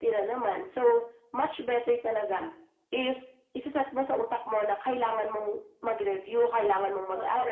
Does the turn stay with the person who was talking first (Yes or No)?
Yes